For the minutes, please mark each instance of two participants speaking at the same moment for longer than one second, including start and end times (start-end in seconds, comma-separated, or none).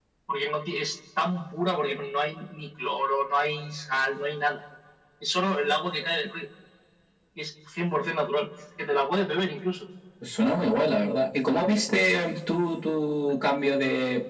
none